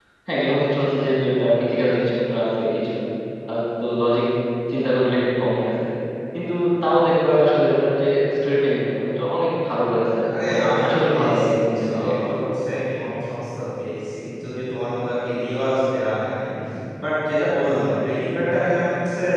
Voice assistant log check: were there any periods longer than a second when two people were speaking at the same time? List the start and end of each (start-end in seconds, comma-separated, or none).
10.4-12.4